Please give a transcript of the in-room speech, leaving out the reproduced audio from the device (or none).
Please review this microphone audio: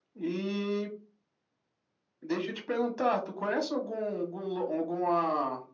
none